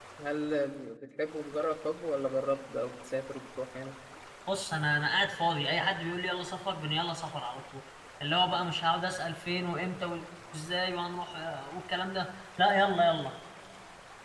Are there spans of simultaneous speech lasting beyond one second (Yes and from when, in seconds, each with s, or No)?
No